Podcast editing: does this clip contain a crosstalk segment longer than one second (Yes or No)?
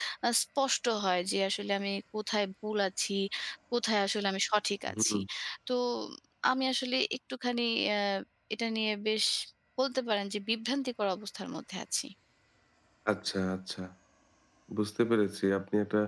No